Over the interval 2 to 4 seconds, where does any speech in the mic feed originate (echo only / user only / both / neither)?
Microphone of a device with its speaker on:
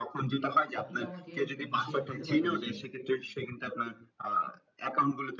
both